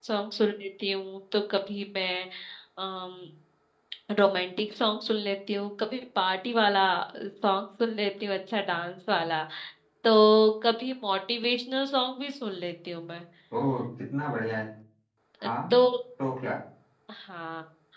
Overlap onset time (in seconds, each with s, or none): none